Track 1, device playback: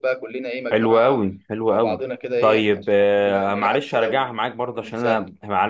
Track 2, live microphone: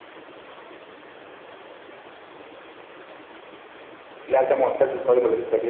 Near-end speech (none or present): present